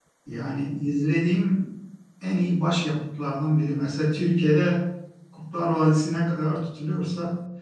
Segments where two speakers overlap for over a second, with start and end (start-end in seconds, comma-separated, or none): none